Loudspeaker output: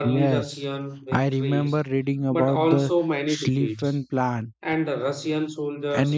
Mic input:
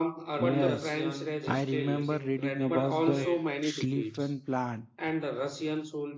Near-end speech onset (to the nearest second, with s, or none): 0 s